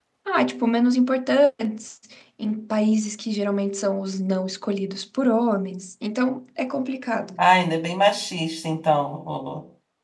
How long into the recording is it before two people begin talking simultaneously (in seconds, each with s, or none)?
none